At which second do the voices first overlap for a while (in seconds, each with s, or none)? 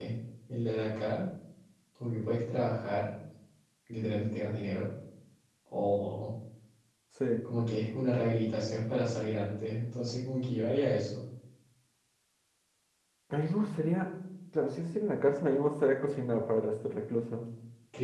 none